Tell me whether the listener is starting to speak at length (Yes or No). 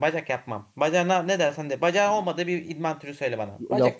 Yes